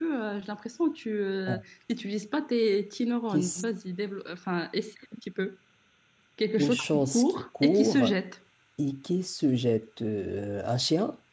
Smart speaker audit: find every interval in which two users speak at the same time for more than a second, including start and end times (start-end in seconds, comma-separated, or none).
6.6-8.1